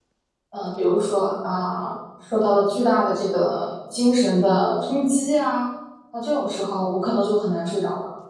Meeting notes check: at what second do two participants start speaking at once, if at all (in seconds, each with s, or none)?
none